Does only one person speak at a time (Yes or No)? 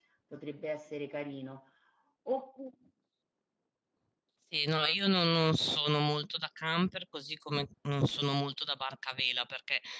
Yes